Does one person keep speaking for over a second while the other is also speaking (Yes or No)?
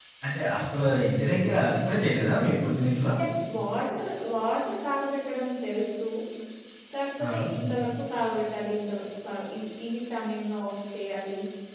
No